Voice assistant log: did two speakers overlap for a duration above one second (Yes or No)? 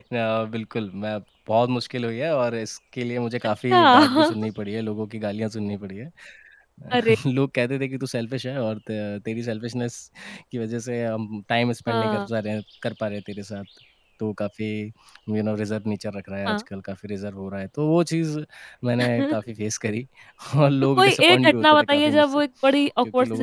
Yes